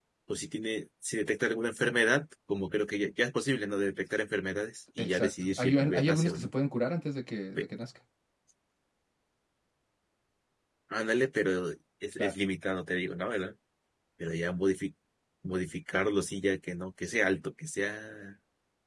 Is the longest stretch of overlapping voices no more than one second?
No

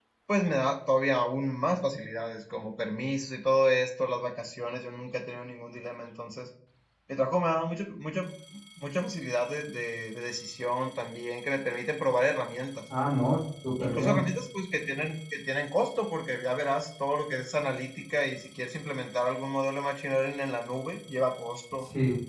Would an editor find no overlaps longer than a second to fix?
Yes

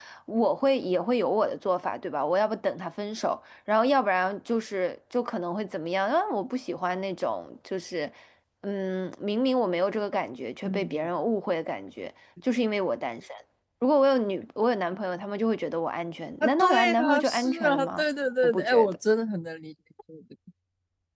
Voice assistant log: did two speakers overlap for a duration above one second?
Yes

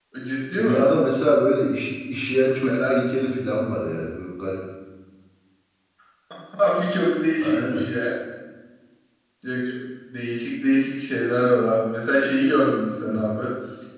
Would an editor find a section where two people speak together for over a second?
No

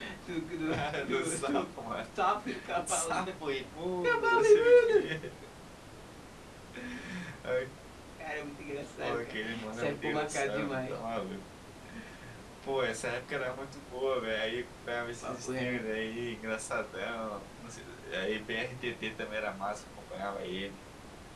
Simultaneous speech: Yes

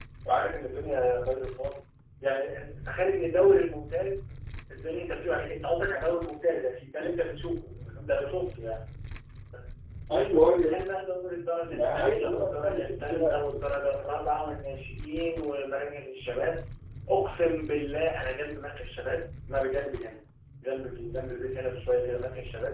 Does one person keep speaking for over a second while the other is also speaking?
Yes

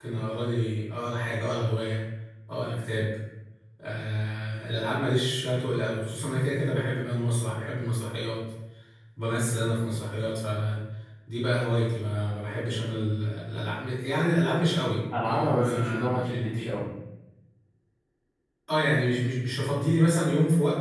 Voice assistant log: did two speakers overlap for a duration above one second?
Yes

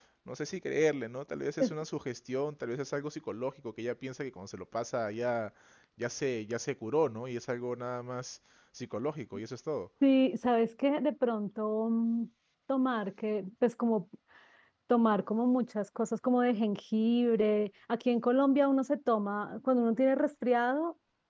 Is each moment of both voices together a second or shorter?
Yes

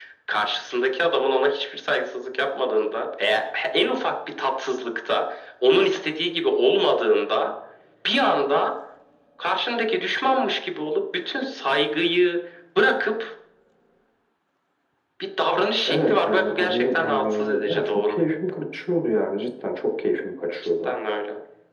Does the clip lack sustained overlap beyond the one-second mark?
No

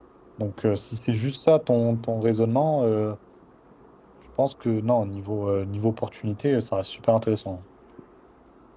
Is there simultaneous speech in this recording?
No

